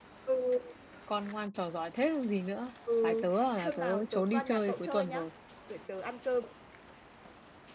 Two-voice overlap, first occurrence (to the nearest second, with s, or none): 3 s